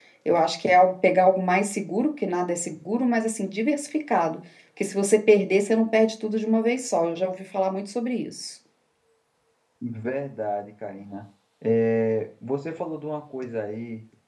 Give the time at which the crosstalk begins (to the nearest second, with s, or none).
none